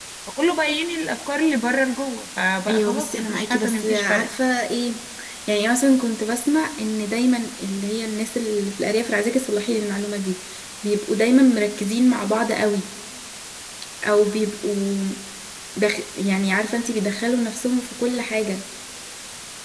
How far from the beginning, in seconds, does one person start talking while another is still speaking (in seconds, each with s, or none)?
2.7 s